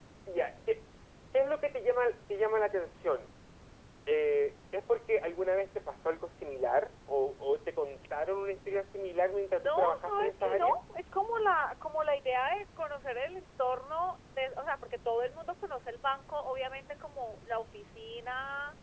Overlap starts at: 9.5 s

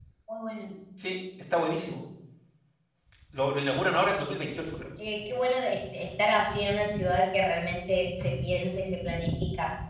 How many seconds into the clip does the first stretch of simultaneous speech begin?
none

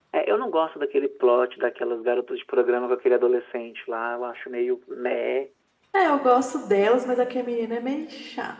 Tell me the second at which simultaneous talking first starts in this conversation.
none

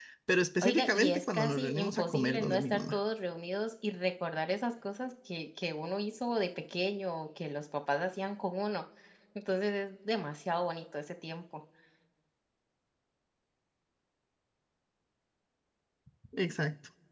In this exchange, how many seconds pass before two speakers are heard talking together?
0.6 s

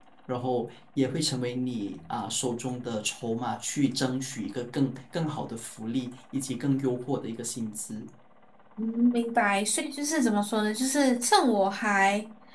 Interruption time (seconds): none

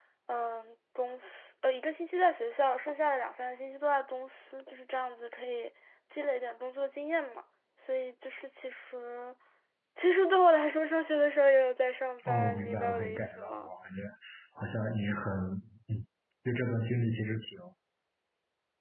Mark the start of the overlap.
12.2 s

